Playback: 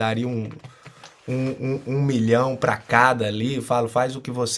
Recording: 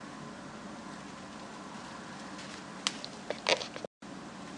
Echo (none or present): none